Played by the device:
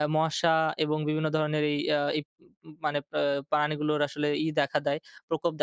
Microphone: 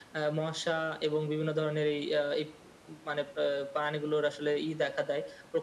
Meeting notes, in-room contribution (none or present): none